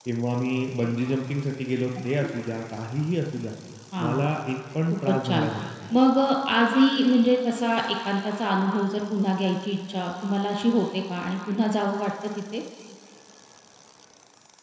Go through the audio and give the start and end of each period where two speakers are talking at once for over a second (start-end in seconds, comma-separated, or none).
none